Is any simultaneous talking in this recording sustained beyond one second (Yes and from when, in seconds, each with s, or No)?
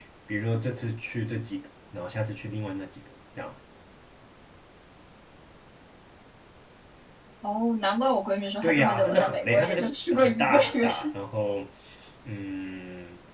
Yes, from 8.6 s